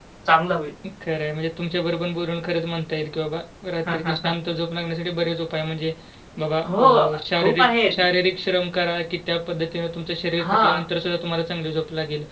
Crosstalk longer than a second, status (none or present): present